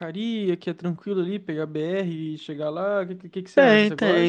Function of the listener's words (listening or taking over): taking over